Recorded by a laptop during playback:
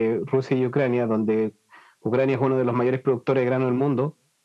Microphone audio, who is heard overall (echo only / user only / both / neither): echo only